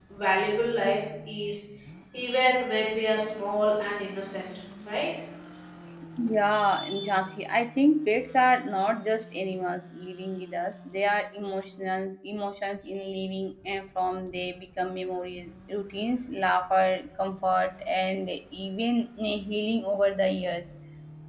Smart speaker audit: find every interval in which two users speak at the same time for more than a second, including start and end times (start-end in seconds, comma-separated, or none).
none